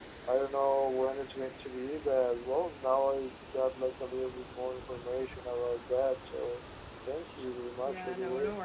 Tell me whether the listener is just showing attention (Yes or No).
No